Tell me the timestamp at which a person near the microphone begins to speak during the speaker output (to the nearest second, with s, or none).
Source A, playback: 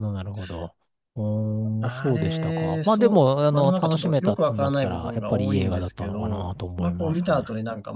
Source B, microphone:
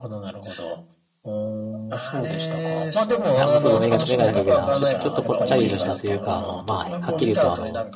3 s